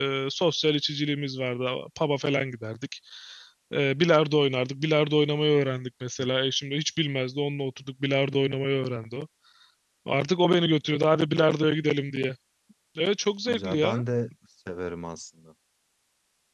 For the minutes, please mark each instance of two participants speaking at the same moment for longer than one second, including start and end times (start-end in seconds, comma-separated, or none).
none